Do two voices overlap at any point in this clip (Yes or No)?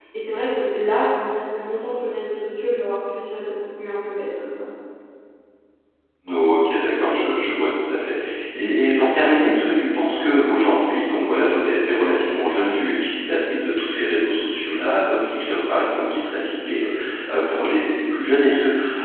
No